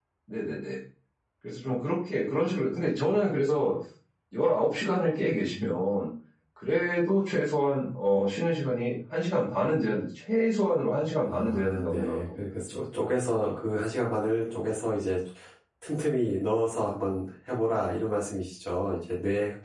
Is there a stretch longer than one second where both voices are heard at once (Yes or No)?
Yes